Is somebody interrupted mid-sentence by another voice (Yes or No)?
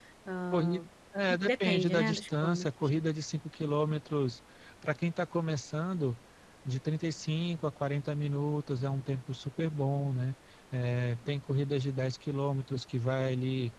Yes